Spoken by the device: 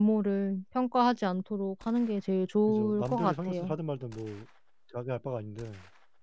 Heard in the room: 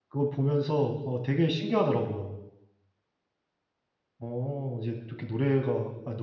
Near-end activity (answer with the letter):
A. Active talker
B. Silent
A